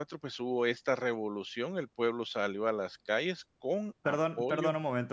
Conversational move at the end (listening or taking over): taking over